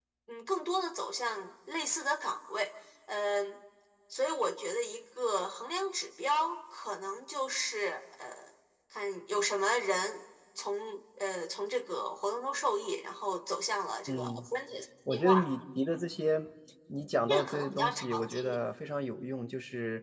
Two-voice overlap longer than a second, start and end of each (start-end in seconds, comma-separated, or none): 17.3-18.6